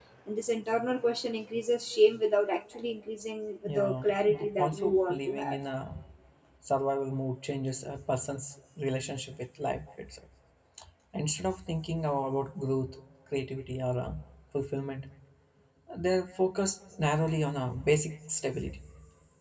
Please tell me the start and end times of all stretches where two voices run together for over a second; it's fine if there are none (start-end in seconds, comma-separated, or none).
3.7-5.6